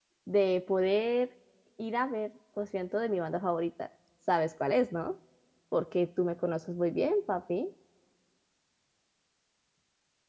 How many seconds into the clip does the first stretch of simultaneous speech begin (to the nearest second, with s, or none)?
none